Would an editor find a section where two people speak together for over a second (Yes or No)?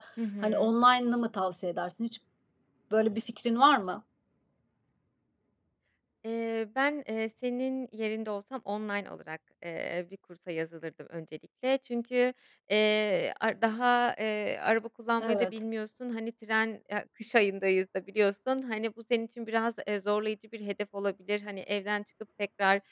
No